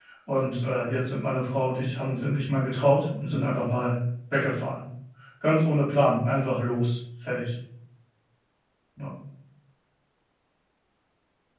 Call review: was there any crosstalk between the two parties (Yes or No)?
No